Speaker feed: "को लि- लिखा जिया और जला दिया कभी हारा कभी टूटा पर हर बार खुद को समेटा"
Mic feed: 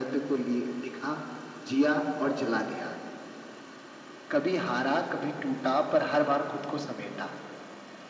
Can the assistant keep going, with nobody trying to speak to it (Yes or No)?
Yes